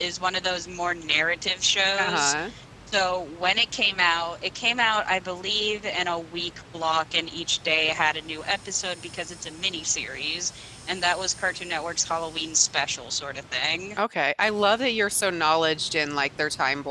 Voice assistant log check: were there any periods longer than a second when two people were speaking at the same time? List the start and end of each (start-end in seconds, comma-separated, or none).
none